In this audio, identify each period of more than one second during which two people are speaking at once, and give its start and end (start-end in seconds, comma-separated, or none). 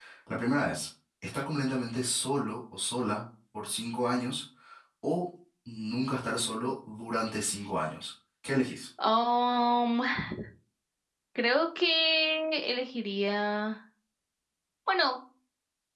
none